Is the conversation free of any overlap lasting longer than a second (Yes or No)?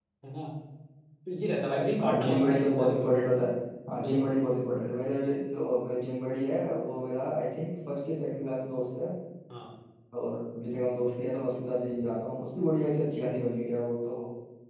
No